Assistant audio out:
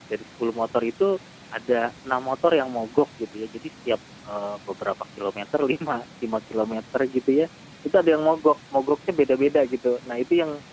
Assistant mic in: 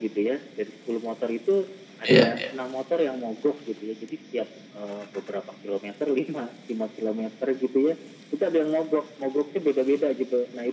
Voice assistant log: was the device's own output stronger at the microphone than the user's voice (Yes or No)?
No